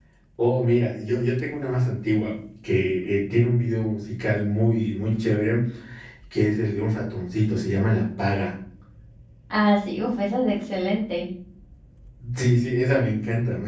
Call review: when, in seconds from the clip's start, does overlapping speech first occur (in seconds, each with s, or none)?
none